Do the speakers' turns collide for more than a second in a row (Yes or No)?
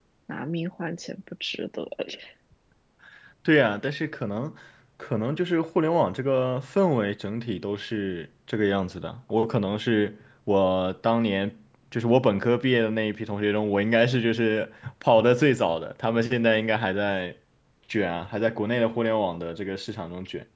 No